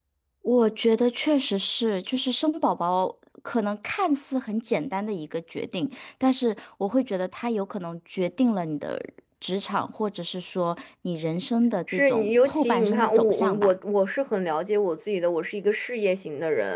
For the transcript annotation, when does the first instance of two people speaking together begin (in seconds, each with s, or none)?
11.9 s